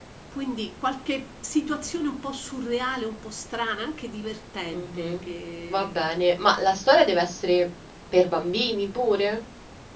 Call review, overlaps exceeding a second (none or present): none